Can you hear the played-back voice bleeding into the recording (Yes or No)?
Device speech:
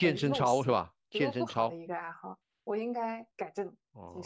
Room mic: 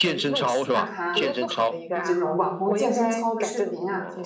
Yes